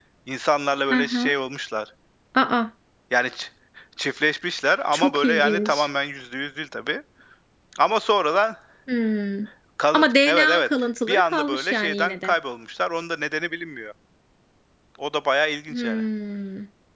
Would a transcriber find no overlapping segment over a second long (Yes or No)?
No